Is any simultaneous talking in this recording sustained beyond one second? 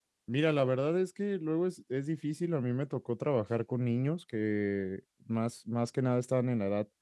No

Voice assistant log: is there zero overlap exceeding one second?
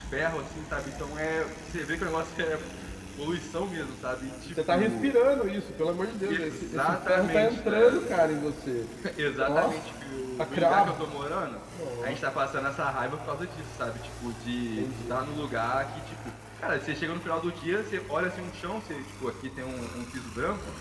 No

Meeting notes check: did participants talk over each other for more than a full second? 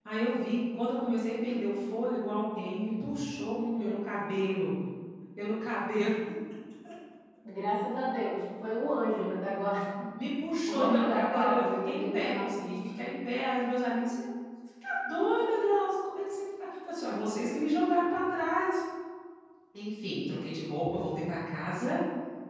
Yes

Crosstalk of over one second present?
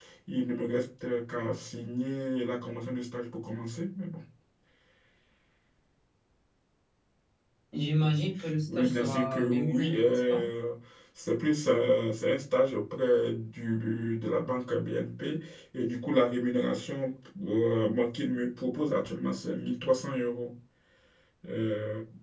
Yes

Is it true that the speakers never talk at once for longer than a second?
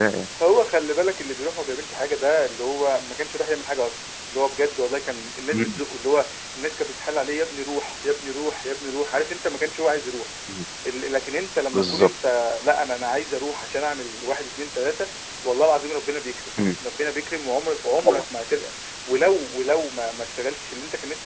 Yes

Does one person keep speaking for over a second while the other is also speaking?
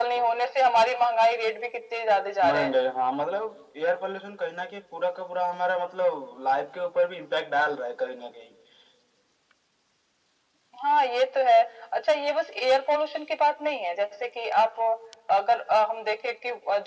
No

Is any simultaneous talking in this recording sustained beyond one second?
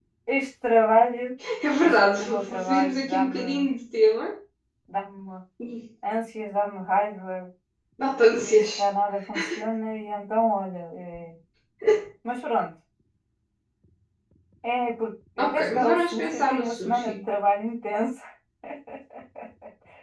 Yes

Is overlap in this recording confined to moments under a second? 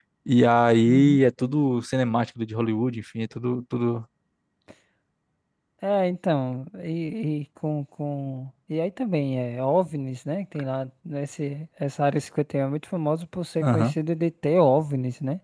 Yes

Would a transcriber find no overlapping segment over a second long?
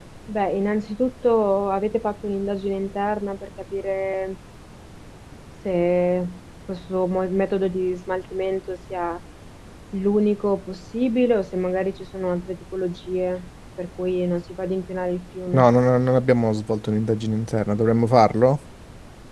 Yes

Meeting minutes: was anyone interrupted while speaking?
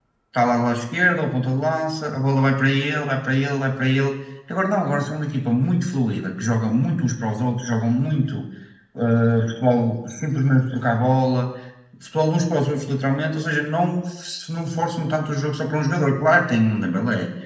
No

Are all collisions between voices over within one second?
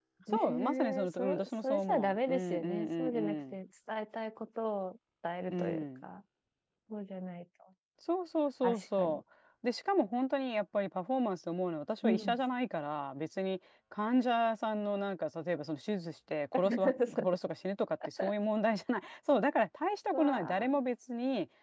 No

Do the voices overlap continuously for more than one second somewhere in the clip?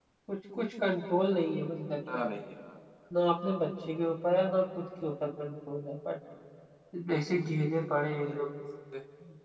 No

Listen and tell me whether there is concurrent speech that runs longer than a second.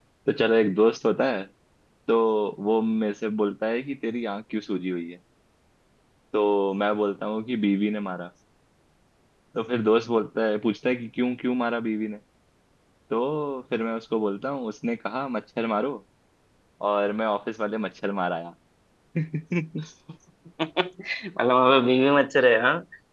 No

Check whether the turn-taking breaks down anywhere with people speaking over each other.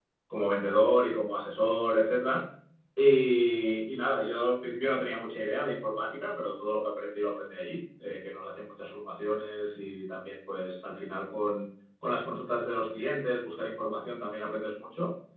No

